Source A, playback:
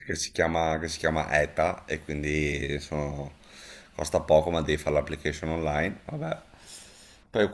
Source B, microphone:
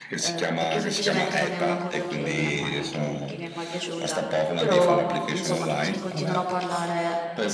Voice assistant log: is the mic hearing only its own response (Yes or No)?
No